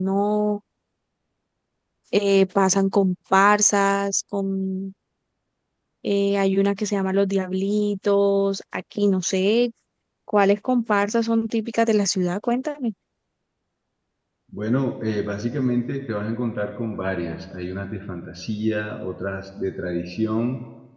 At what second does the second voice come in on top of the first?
none

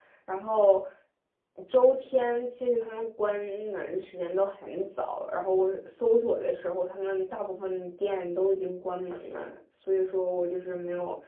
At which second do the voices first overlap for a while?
none

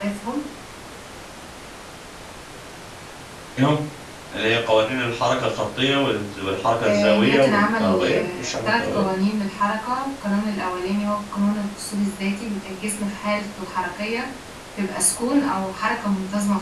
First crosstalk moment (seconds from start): 7 s

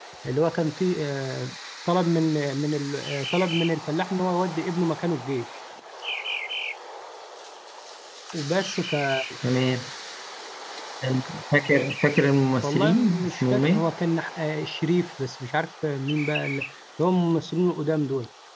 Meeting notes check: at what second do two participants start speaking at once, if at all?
13 s

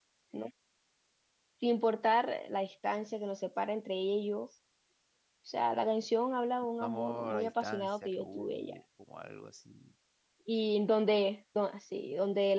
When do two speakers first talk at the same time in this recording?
7 s

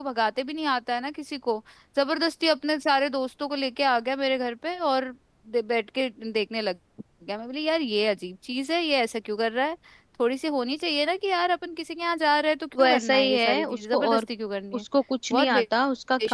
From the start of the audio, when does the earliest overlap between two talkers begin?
13 s

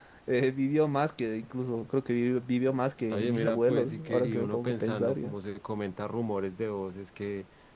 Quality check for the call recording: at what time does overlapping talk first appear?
3 s

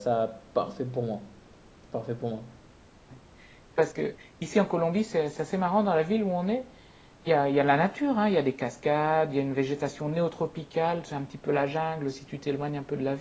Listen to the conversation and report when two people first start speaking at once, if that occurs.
none

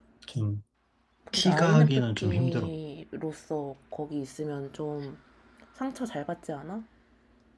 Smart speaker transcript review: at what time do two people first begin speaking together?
1 s

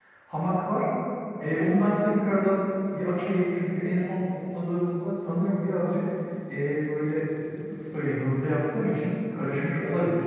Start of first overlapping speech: none

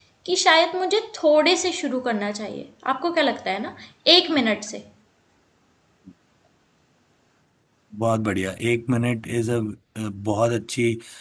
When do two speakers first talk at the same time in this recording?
none

